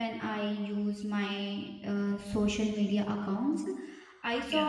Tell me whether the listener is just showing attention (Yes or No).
Yes